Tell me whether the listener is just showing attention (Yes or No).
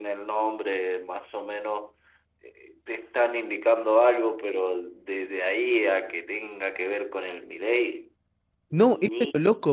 No